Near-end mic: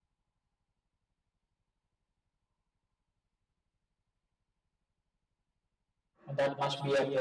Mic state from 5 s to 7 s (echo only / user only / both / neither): user only